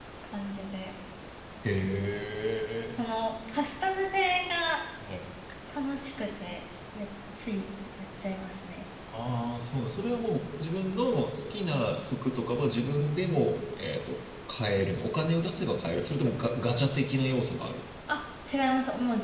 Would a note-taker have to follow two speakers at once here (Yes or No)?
No